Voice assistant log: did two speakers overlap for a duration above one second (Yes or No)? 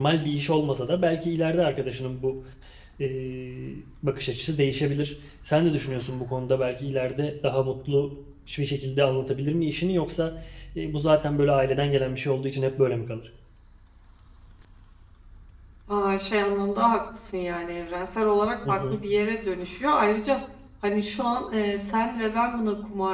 No